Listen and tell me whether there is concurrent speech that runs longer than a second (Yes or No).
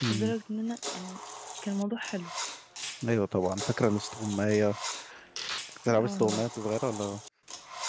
No